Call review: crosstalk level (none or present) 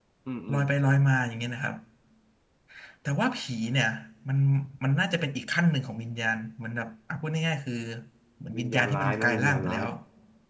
present